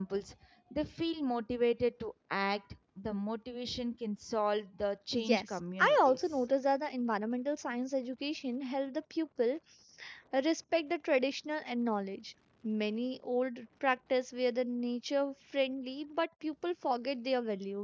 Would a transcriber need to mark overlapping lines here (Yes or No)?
Yes